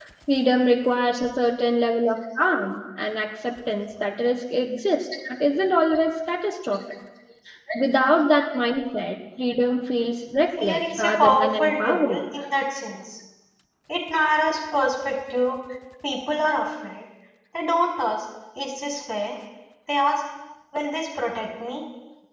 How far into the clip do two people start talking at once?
10.6 s

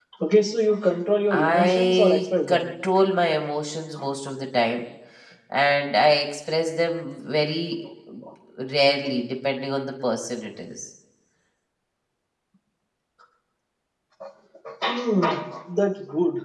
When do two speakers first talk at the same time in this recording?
1.3 s

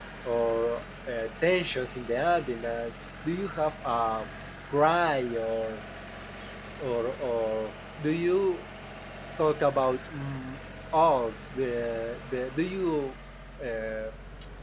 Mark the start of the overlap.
none

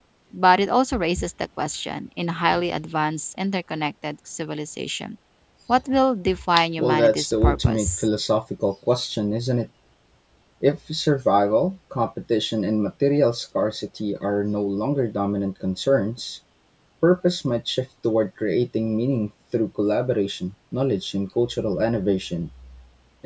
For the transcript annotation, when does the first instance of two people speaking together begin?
6.6 s

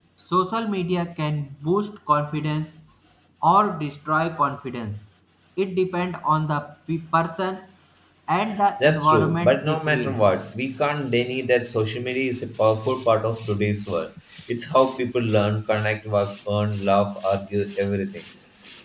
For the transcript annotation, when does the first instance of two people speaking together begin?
8.8 s

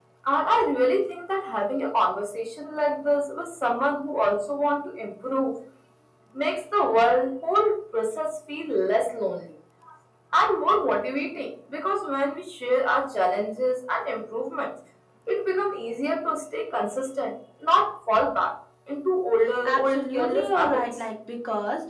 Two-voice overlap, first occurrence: 19.6 s

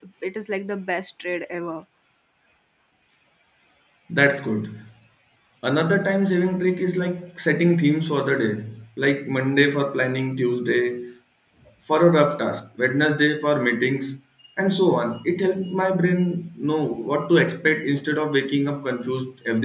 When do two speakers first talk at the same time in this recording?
none

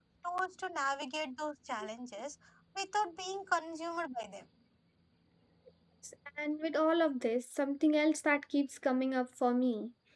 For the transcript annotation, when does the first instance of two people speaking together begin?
none

